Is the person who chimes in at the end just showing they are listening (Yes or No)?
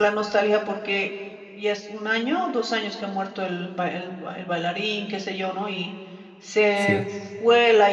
Yes